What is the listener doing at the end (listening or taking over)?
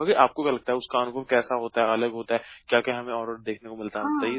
taking over